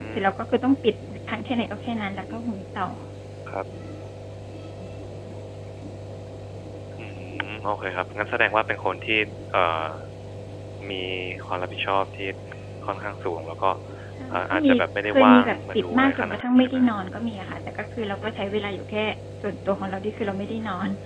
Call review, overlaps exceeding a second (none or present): present